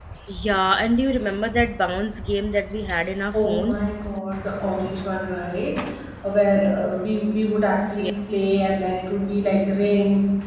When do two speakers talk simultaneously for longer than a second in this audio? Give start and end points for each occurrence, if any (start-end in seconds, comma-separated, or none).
none